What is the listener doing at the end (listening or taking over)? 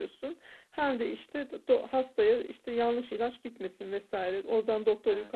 listening